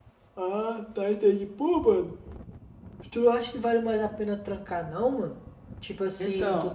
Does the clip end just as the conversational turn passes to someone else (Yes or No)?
No